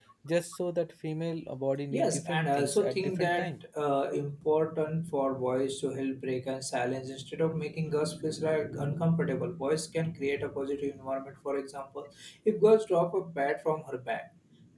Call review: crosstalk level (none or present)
present